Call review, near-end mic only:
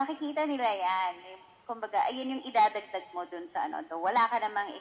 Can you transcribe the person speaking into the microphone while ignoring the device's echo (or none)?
none